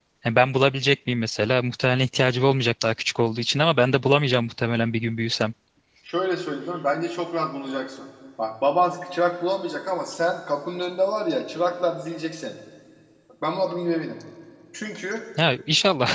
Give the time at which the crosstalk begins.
none

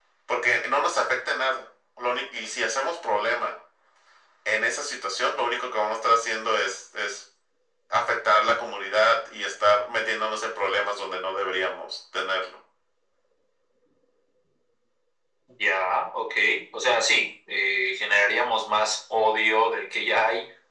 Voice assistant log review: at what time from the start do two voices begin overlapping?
none

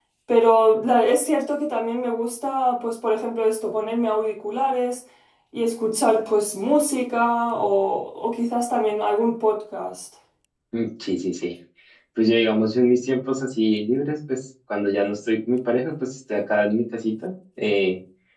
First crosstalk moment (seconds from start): none

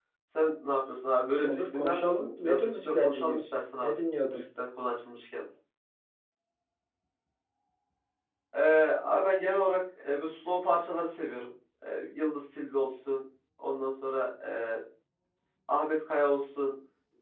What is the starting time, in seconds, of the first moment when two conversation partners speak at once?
1 s

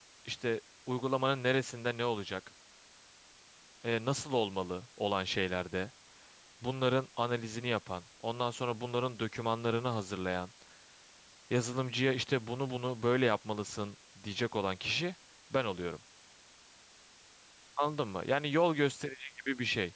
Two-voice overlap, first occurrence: none

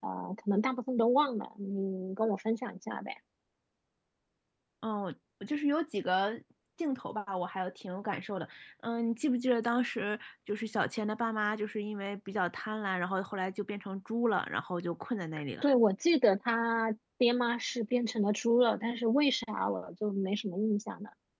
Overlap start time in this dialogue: none

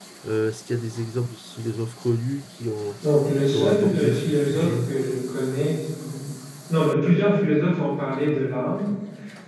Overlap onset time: 4 s

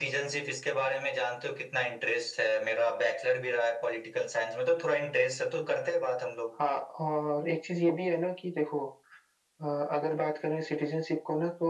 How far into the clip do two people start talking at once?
none

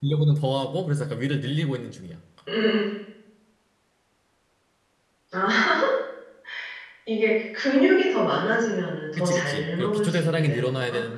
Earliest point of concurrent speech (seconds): 9 s

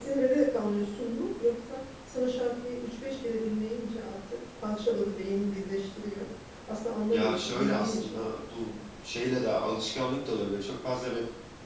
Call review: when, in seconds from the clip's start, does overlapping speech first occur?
7 s

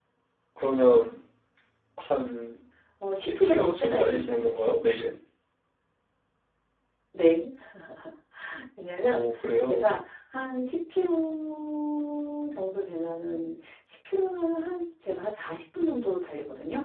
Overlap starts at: 3 s

